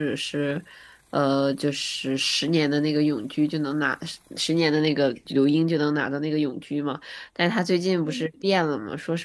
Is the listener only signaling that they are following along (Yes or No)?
Yes